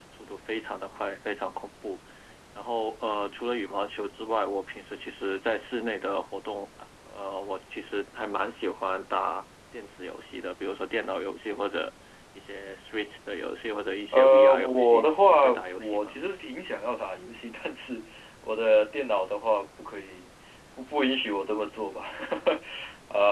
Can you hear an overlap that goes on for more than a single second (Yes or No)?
Yes